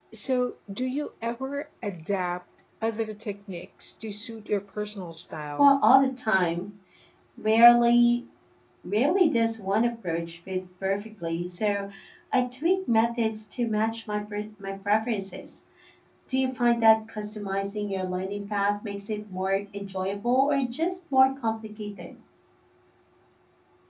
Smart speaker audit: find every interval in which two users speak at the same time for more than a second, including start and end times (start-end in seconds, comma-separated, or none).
none